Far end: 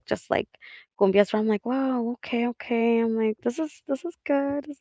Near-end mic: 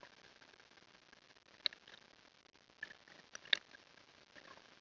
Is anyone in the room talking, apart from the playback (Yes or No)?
No